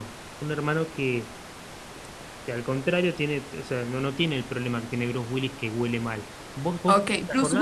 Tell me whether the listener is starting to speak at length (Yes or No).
Yes